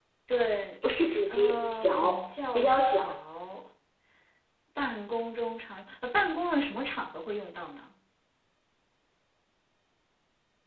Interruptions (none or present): present